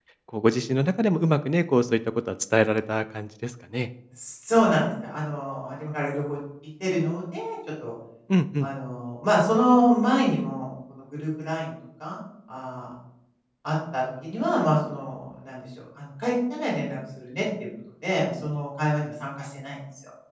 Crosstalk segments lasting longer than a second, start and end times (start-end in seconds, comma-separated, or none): none